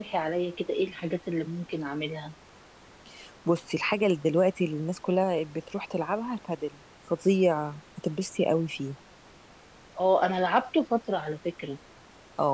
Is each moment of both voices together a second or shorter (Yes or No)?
Yes